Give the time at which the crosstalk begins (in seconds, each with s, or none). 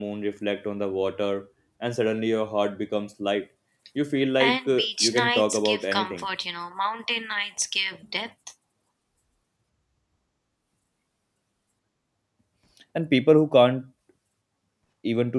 4.4 s